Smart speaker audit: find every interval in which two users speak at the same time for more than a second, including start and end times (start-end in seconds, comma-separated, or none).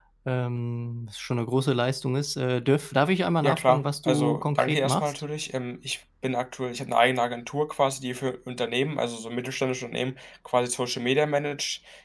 3.4-5.1